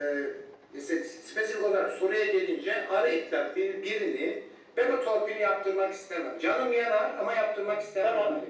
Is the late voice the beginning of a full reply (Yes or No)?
Yes